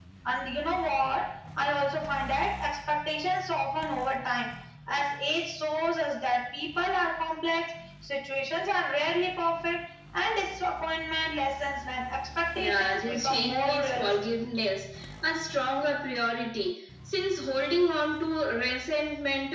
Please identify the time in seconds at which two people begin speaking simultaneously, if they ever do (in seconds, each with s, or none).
12.6 s